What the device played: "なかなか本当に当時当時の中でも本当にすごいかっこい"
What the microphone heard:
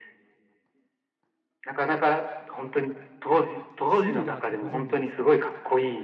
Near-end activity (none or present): present